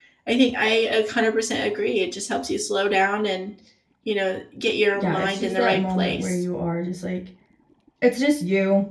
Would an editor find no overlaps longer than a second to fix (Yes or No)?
No